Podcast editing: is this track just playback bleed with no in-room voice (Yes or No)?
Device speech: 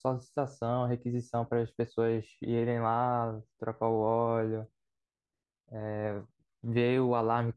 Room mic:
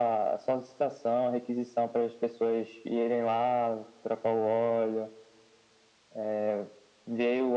Yes